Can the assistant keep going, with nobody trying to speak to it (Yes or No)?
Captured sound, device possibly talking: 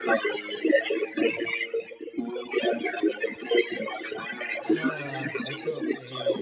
No